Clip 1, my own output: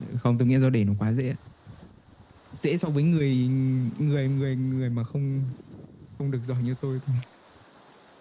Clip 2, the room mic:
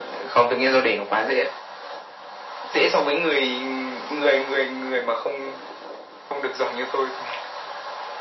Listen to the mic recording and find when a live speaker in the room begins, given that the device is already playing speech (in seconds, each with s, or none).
none